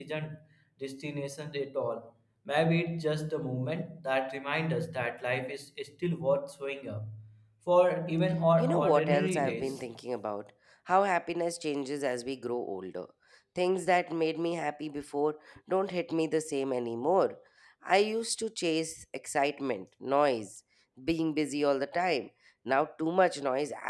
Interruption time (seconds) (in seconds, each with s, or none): 8.6 s